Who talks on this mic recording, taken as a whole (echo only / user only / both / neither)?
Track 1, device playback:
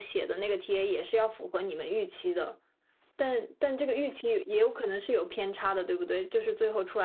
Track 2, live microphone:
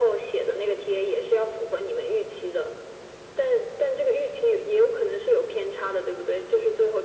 echo only